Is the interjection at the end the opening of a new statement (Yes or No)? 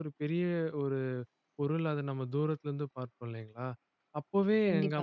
No